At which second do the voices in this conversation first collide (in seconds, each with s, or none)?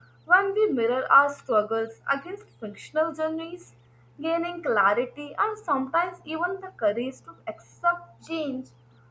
none